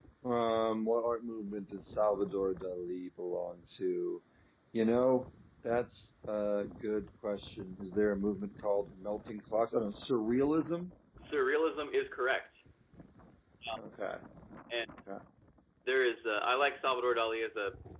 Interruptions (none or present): none